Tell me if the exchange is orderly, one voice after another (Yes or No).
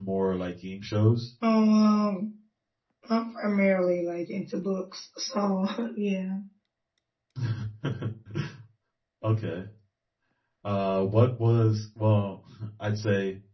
Yes